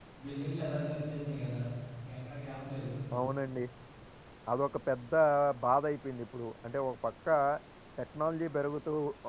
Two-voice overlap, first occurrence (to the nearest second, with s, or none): none